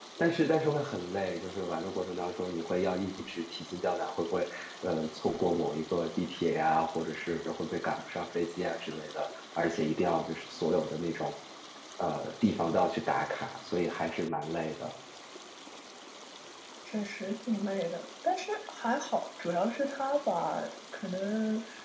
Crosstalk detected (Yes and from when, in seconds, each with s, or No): No